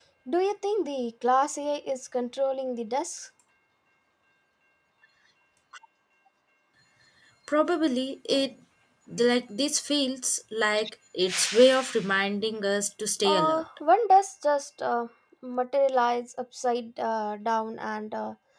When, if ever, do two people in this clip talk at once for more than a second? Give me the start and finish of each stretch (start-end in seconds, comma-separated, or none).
none